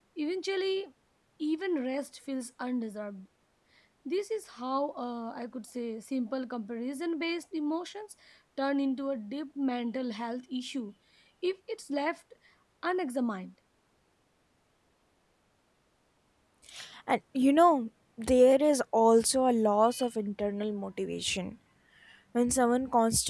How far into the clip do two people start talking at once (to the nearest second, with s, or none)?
none